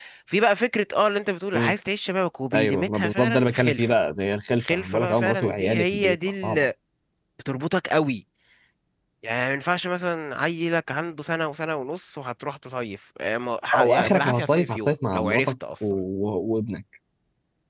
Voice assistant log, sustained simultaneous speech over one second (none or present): present